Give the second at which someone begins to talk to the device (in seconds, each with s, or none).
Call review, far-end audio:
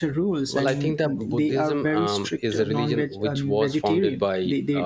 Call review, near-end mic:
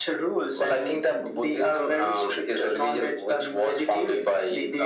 none